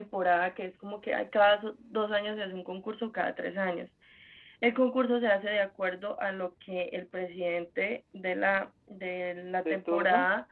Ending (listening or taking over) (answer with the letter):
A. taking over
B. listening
B